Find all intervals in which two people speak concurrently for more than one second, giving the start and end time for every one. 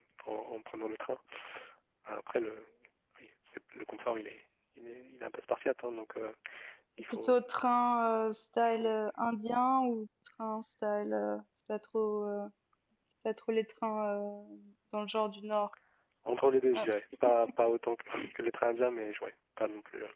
none

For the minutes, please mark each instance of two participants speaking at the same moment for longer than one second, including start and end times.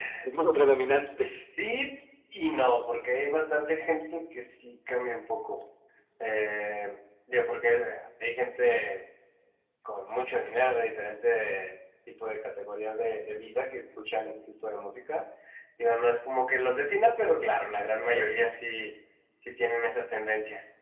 none

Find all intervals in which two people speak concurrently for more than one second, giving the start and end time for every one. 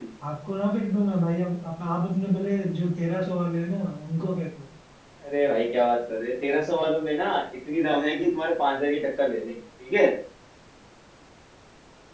none

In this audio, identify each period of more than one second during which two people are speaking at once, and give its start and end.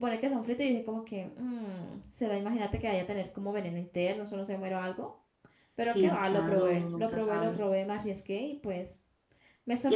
5.9-7.6

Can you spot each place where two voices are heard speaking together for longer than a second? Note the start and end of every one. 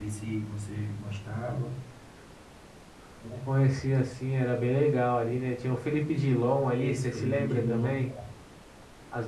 6.7-7.9

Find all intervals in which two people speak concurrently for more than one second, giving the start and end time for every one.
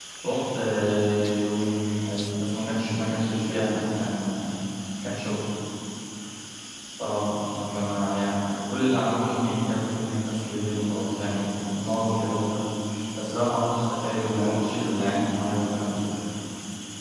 14.1-16.0

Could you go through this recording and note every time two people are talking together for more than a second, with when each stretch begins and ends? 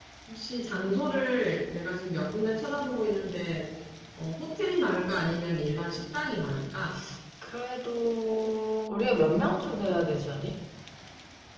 none

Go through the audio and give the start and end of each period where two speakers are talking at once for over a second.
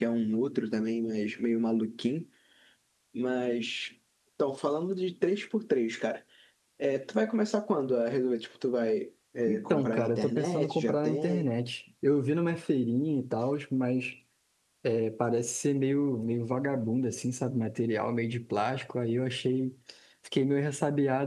9.5-11.4

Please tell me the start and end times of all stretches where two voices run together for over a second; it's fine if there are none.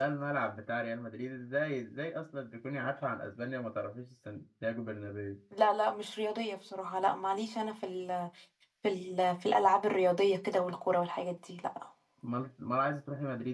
none

